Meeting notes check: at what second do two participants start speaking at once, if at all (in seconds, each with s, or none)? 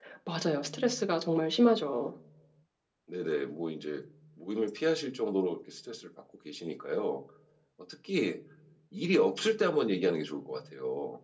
none